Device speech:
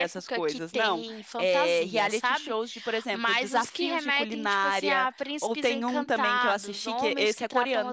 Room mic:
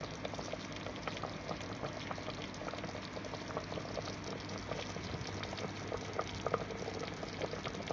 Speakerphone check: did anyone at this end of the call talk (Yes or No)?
No